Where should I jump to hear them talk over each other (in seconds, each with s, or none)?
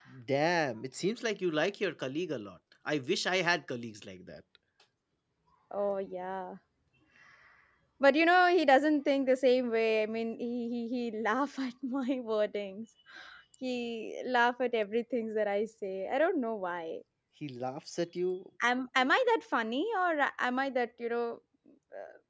none